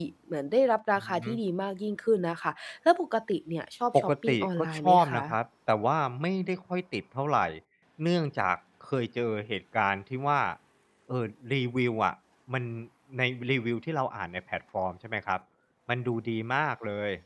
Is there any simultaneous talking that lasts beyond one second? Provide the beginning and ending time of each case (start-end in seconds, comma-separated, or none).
4.0-5.2